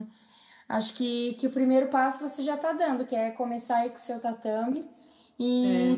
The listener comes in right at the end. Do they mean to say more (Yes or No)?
No